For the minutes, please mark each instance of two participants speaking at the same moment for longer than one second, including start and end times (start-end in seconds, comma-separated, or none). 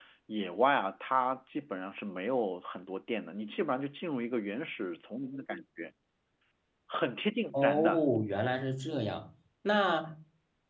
none